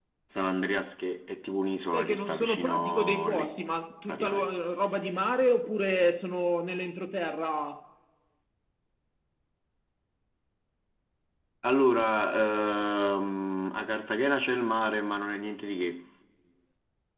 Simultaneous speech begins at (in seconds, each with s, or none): 1.9 s